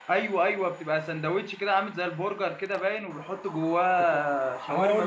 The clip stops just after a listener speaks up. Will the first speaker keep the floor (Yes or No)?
No